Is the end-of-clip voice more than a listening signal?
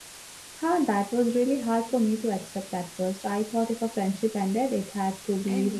Yes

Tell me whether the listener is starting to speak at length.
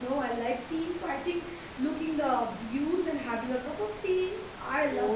Yes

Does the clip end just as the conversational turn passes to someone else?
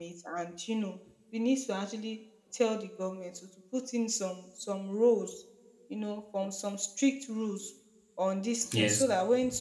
No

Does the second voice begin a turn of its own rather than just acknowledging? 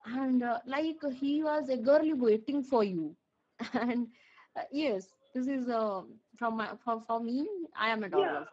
Yes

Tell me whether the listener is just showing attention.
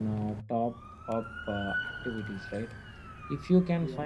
Yes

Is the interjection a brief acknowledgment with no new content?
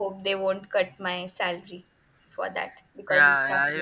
No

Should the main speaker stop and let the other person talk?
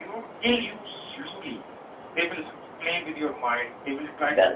No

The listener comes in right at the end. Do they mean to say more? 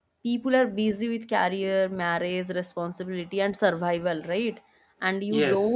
No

